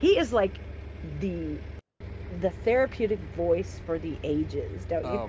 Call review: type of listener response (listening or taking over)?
taking over